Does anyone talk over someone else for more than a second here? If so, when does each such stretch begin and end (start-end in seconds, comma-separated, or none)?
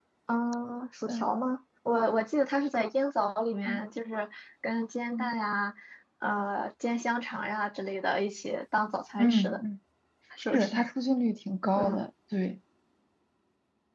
none